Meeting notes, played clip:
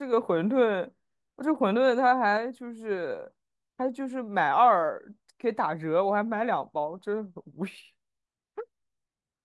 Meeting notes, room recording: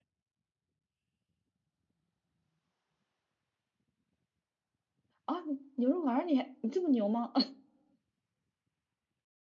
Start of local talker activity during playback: 5 s

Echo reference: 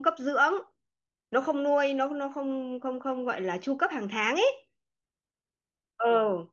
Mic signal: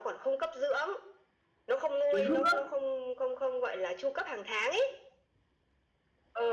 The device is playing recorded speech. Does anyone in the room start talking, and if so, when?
2 s

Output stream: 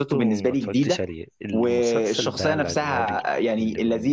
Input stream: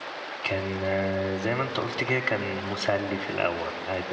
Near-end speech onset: 0 s

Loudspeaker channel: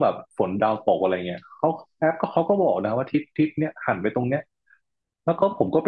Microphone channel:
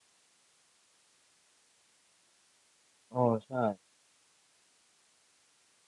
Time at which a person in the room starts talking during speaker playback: 3 s

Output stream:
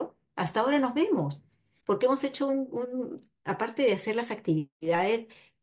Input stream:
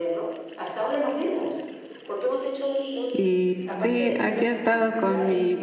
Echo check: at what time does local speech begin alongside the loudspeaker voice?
3 s

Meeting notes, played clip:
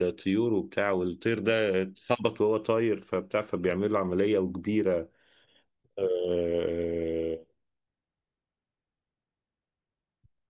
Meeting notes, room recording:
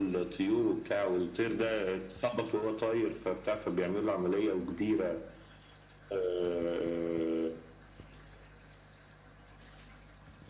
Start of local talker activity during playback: none

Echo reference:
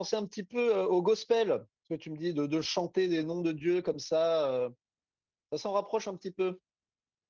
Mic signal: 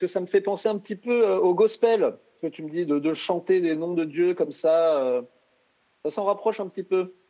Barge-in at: none

